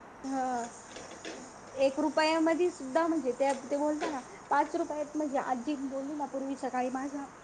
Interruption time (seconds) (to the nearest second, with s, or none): none